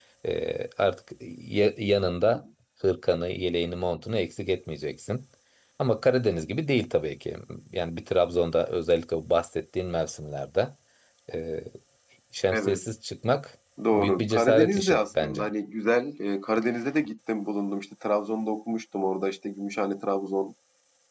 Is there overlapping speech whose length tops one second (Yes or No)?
Yes